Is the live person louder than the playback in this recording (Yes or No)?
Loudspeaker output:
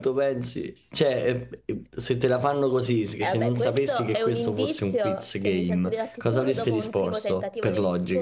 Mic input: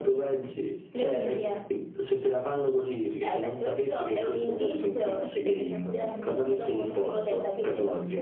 No